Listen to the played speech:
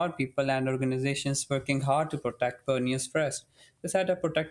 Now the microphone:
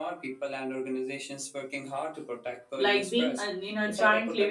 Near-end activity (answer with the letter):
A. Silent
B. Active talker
B